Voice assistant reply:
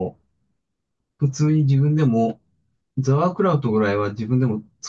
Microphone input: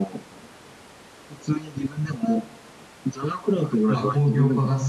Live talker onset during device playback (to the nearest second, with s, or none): 4 s